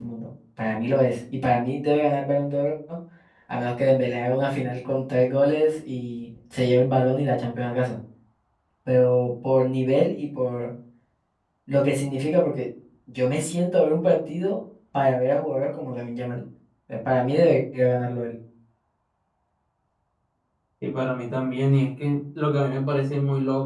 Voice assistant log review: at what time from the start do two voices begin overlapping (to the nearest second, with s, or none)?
none